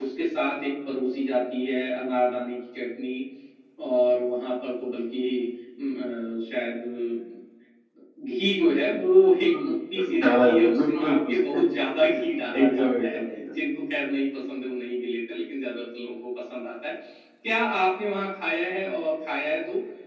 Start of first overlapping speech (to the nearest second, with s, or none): 9 s